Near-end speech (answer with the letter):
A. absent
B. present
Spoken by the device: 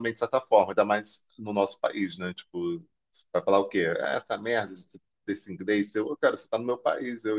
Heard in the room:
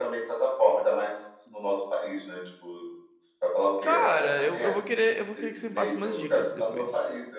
B